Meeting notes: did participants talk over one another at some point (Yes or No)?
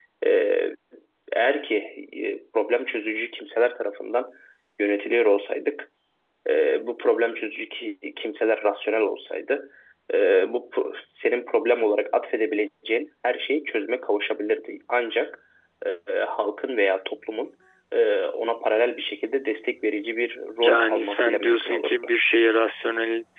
Yes